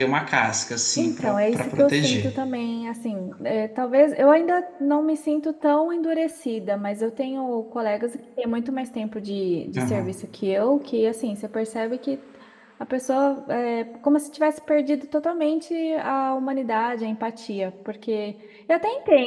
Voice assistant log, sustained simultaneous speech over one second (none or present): present